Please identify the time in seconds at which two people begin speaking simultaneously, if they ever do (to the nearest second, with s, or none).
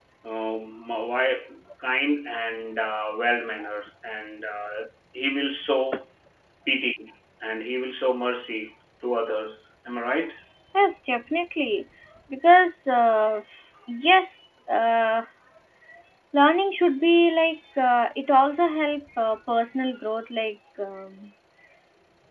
none